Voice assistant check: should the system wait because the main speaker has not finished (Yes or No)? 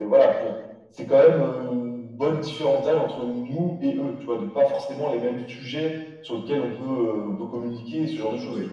No